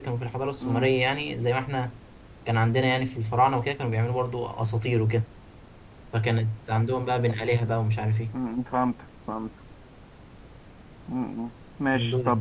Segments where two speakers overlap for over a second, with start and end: none

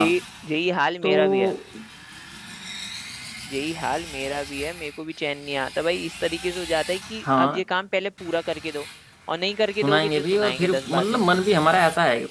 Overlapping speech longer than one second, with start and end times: 9.8-11.2

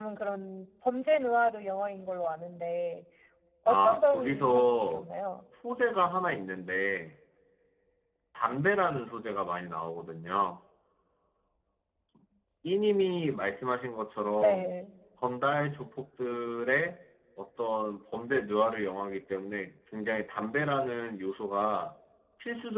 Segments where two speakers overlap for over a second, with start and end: 3.7-5.1

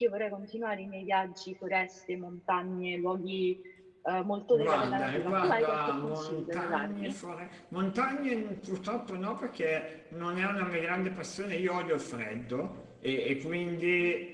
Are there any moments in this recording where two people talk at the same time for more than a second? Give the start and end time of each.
4.5-7.1

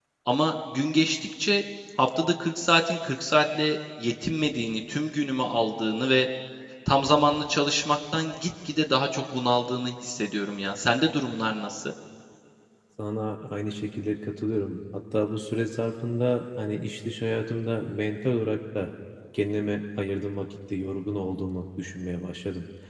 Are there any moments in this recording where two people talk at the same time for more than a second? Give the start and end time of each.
none

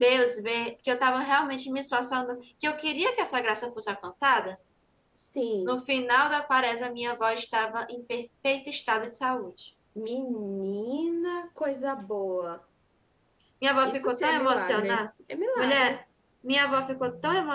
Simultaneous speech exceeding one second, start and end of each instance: 13.8-15.1

